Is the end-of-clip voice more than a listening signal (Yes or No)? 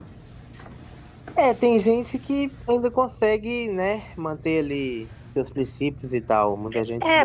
Yes